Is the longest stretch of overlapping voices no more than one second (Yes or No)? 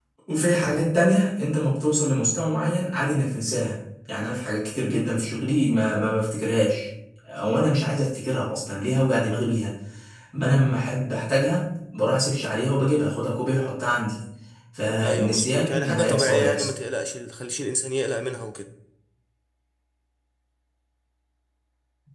No